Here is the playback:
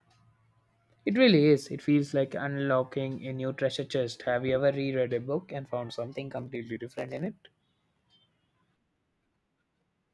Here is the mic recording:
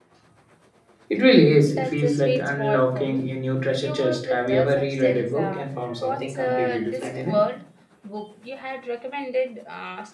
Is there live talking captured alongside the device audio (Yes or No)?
Yes